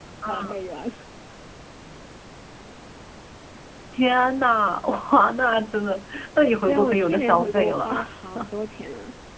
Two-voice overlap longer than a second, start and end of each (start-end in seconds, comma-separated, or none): 6.7-7.9